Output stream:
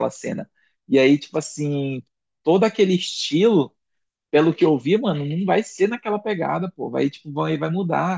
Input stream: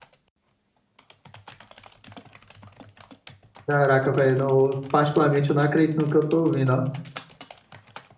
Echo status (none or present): none